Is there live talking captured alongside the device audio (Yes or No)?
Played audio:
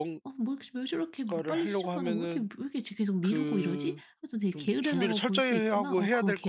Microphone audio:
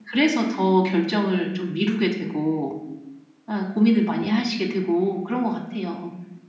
Yes